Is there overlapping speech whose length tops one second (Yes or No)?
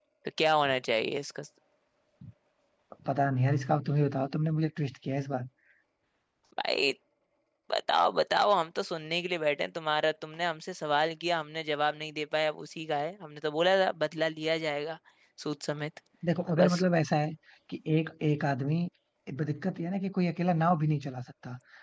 No